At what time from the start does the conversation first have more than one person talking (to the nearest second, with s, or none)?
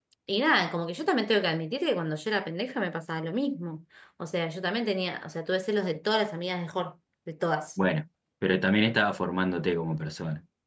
none